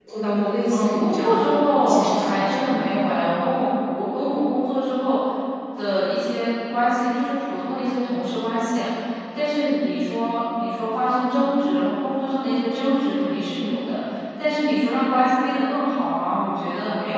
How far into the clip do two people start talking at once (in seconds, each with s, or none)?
0.7 s